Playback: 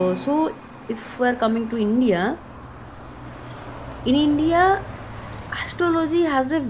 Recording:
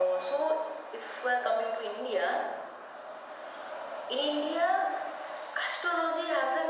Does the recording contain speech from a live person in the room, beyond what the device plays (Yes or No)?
No